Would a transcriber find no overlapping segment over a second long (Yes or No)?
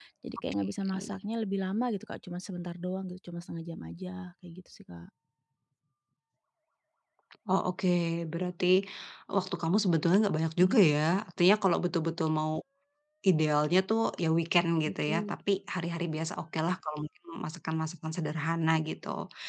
Yes